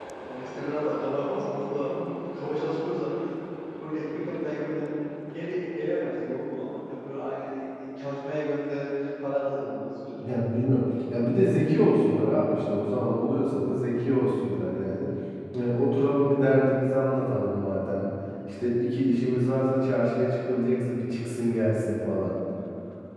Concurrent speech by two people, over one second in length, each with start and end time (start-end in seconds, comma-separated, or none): none